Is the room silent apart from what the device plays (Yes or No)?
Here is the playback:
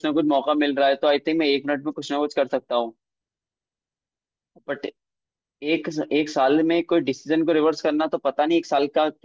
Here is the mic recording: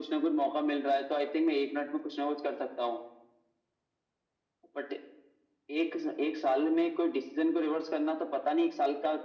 Yes